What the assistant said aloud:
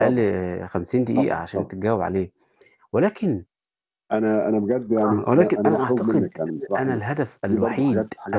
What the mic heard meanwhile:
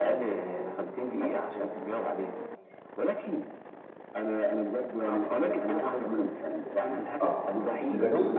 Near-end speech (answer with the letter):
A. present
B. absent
A